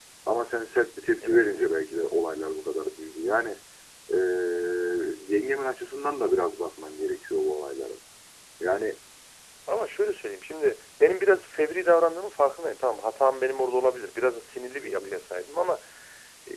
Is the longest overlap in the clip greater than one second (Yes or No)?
No